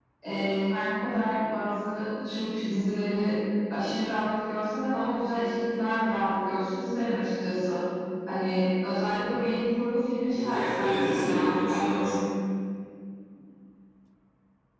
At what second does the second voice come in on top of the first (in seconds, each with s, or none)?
10.3 s